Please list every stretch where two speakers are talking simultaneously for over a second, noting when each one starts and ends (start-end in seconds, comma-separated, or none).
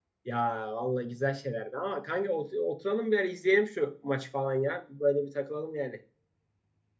none